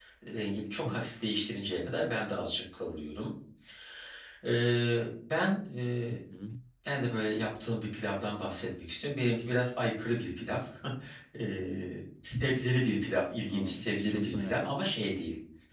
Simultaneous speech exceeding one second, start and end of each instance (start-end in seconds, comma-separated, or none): 13.4-14.9